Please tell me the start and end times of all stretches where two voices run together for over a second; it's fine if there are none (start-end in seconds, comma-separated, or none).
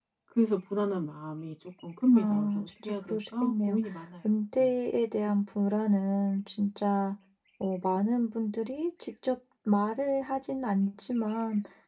2.1-3.8